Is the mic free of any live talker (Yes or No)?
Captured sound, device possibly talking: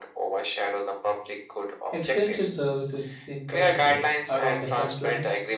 No